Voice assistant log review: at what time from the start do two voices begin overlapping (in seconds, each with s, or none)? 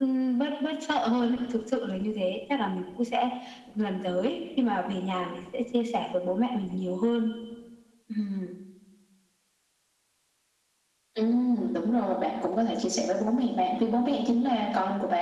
none